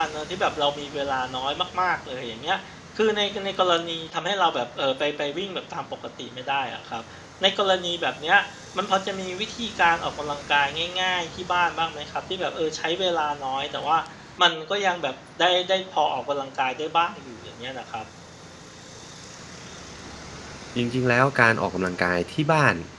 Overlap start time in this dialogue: none

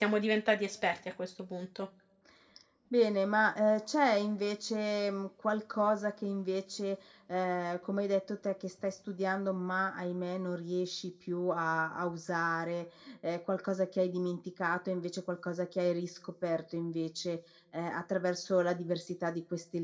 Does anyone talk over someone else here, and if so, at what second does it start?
none

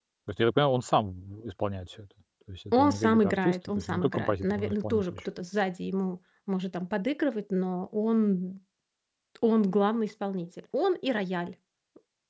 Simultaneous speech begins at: 2.7 s

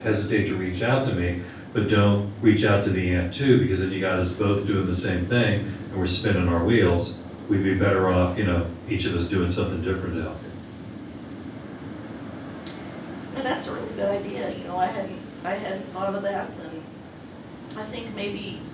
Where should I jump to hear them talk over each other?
none

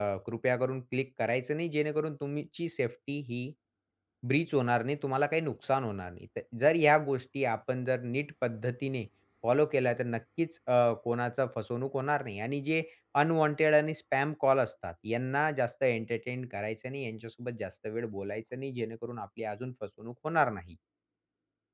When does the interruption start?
none

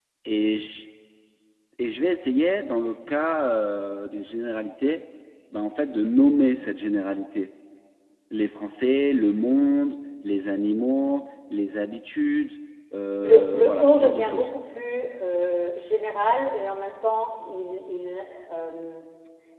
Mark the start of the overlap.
13.2 s

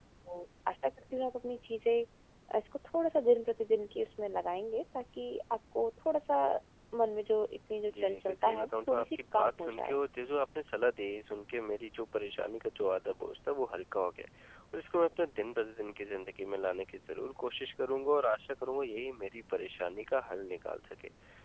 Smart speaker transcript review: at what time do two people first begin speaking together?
7.9 s

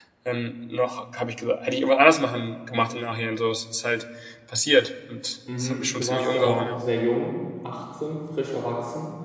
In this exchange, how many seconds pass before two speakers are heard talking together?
5.5 s

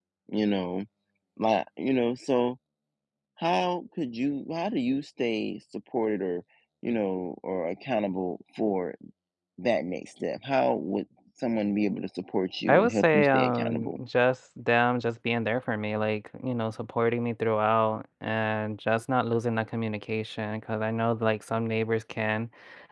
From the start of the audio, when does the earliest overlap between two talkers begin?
12.7 s

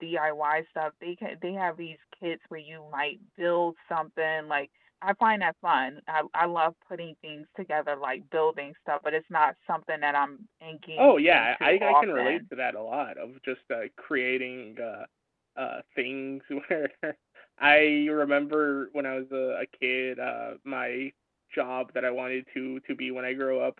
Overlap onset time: 11.0 s

